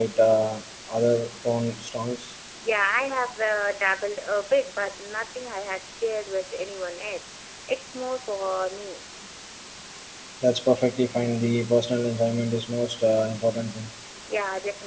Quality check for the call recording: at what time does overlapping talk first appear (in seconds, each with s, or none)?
none